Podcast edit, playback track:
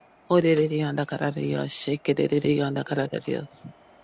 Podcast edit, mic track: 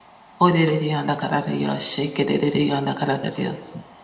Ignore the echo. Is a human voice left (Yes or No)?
No